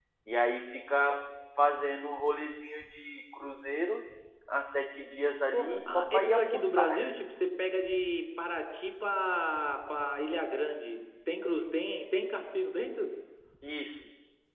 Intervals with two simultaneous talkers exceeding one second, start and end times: 5.5-6.9

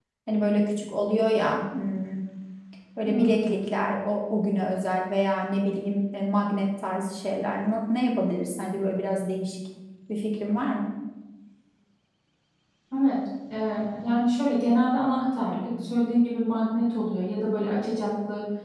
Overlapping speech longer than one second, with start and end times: none

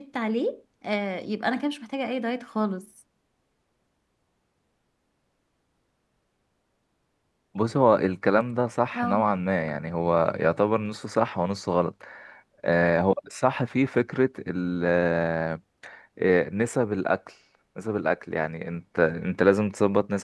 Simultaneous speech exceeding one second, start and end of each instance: none

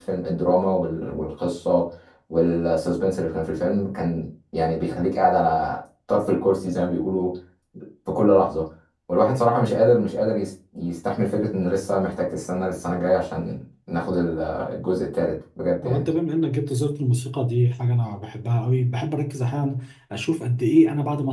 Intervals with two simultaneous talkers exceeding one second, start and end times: none

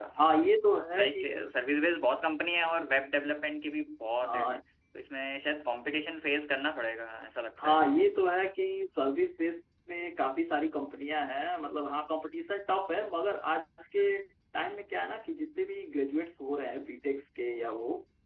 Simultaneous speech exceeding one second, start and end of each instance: none

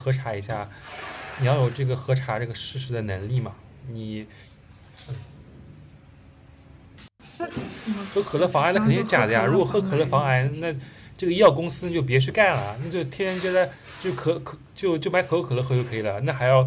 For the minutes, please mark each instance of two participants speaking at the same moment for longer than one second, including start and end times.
8.3-10.7

